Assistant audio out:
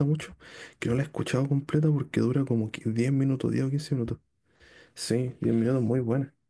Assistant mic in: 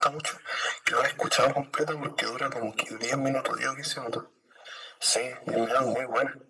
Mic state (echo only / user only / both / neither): echo only